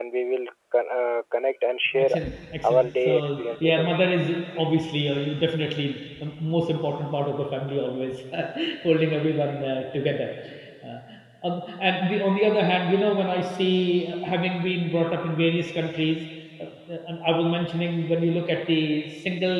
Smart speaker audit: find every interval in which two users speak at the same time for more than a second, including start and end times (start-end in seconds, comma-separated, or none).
2.6-4.2